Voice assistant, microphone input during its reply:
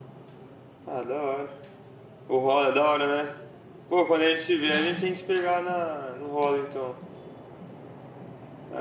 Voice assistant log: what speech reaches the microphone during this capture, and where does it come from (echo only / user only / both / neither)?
user only